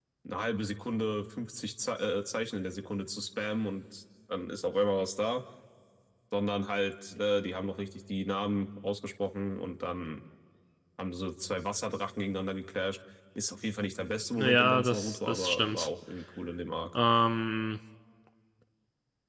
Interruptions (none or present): present